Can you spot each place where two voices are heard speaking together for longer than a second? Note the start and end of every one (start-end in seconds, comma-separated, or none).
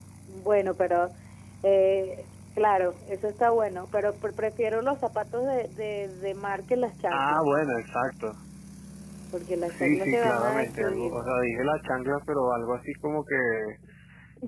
9.7-11.2